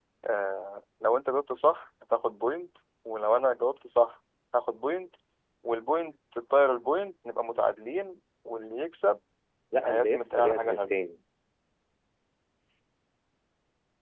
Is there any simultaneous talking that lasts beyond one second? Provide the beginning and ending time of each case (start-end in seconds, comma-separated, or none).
9.8-11.0